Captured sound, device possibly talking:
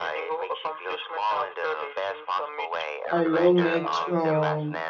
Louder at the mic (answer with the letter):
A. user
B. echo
A